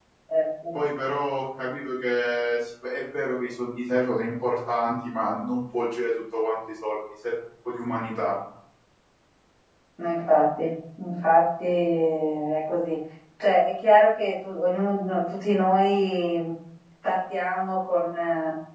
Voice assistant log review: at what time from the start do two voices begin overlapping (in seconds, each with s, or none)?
none